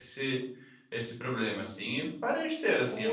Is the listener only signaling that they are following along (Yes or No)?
No